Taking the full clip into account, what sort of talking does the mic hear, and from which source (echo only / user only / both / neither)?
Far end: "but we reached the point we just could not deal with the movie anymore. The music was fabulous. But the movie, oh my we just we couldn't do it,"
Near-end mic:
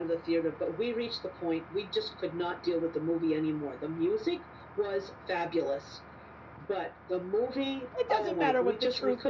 both